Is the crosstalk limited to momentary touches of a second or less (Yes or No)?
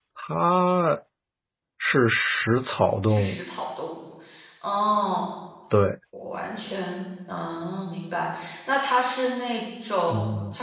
Yes